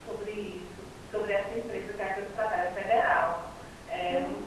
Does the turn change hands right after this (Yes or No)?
No